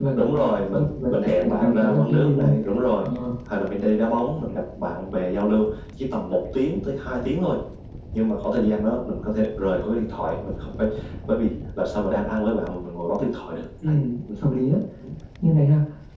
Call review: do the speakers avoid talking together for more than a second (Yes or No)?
No